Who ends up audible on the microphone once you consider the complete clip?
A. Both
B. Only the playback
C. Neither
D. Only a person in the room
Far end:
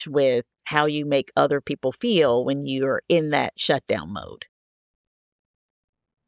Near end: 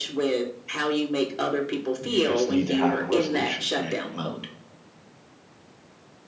A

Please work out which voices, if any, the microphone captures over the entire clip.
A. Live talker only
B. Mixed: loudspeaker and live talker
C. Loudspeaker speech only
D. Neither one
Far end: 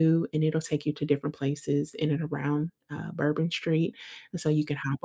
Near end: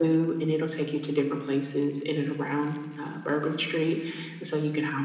C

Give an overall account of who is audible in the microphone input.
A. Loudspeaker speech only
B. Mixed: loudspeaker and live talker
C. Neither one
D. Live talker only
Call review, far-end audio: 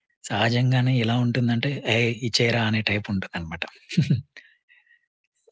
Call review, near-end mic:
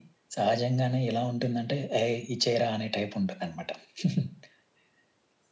A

